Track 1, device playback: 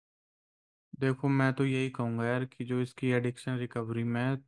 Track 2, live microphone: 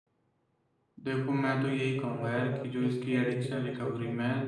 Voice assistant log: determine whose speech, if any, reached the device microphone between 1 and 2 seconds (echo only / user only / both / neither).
both